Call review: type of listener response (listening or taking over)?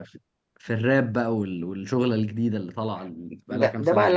taking over